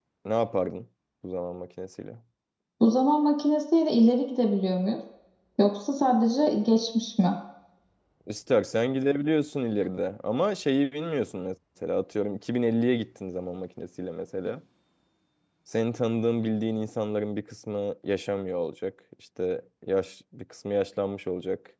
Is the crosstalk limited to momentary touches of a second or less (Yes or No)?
Yes